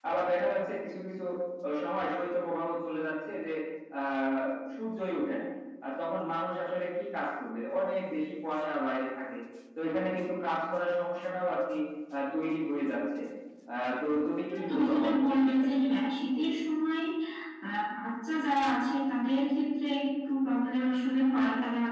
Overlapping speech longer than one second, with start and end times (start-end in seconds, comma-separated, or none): 14.4-15.7